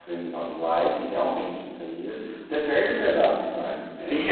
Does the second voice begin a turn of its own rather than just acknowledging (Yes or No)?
Yes